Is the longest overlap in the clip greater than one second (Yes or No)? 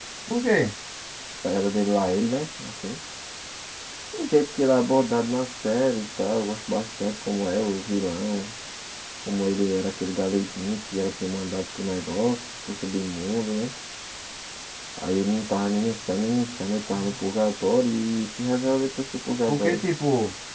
No